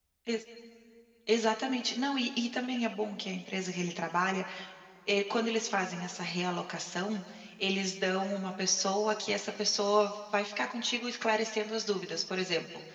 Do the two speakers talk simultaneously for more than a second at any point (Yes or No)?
No